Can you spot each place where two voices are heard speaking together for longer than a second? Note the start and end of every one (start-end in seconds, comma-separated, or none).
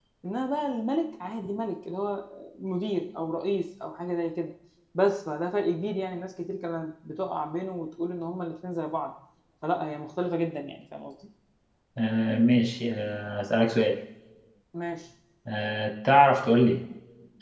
none